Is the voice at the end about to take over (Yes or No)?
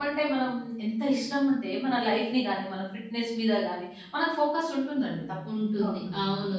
Yes